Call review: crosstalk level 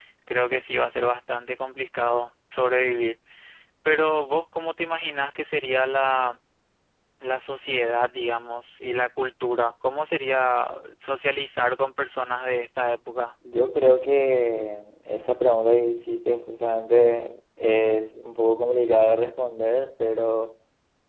none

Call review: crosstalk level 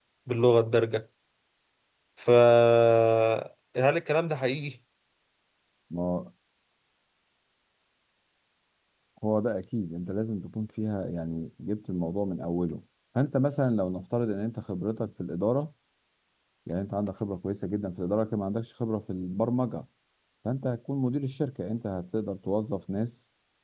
none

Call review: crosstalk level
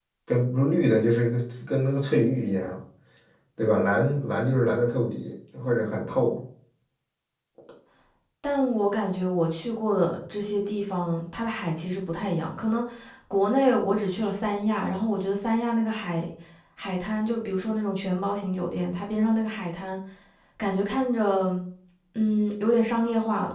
none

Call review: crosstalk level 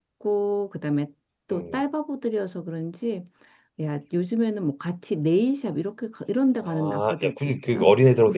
present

